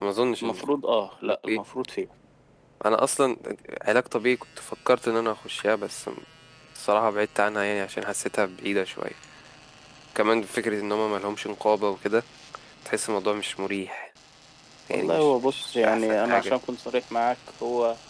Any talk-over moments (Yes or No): Yes